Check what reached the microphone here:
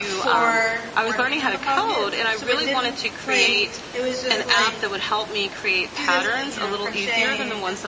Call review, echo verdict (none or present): present